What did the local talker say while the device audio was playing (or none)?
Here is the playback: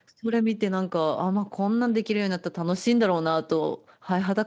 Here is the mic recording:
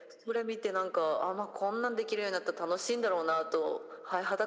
none